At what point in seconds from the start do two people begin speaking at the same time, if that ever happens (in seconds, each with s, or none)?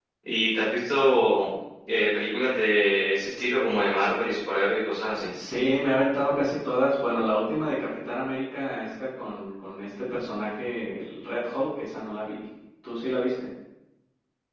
none